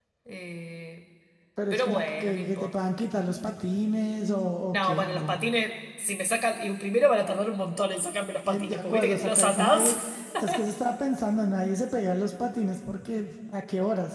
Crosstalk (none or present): present